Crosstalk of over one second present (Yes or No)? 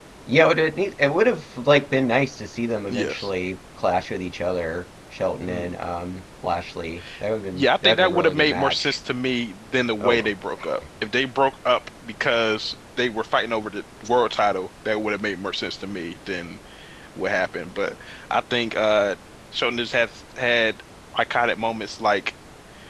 Yes